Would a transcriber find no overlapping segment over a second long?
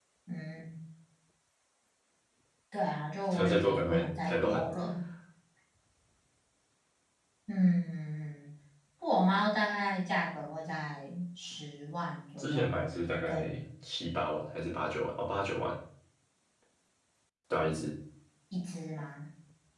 No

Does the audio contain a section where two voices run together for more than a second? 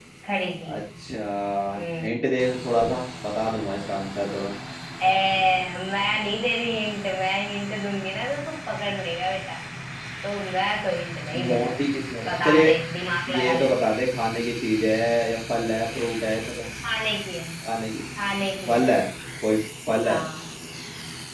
No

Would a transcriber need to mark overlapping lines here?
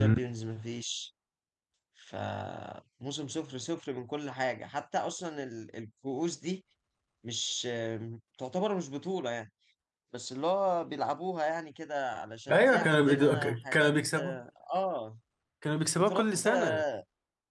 Yes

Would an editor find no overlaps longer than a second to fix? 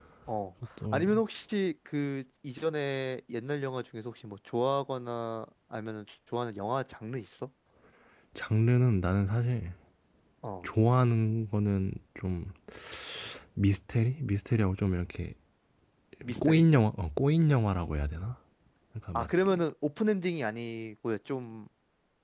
Yes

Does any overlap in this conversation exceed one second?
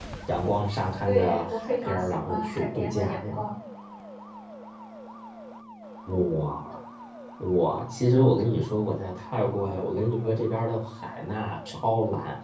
Yes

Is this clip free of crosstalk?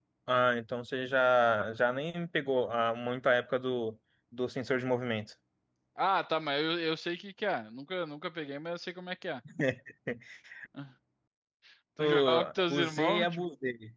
No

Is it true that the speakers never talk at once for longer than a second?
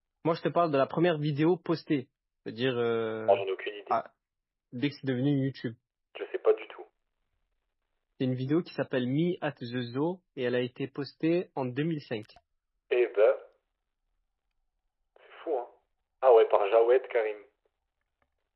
Yes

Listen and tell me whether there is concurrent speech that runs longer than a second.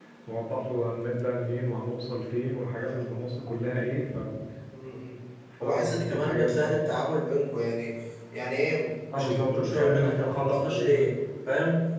Yes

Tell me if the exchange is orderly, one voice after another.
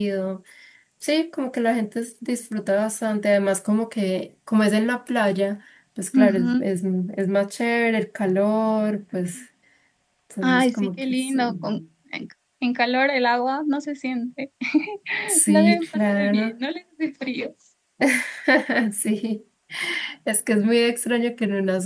No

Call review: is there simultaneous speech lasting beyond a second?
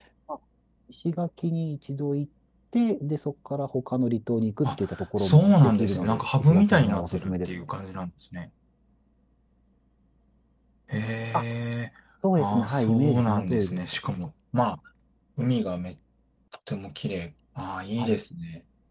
Yes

